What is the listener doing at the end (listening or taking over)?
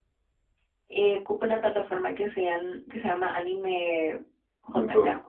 taking over